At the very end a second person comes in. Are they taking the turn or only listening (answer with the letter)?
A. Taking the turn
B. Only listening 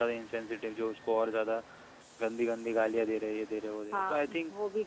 A